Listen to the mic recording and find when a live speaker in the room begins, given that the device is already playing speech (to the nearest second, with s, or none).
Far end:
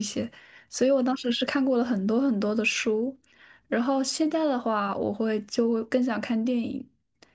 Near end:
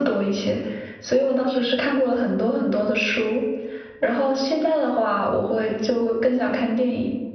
none